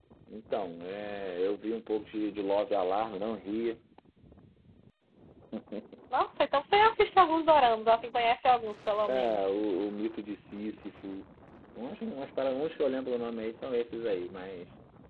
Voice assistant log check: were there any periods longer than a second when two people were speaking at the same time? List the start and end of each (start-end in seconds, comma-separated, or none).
none